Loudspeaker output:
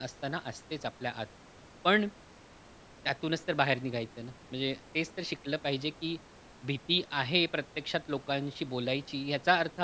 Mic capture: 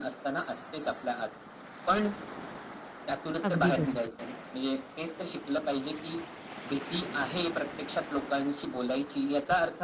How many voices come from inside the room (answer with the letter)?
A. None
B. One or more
B